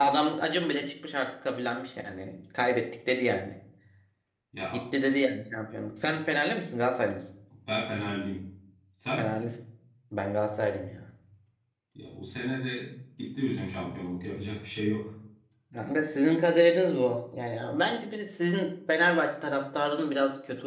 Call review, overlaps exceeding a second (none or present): none